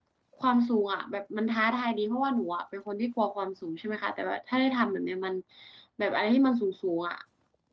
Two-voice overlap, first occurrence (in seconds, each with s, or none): none